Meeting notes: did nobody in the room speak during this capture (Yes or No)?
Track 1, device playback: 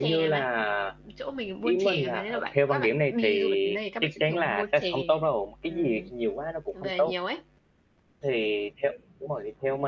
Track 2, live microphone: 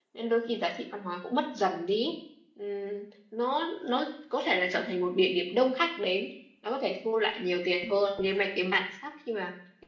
No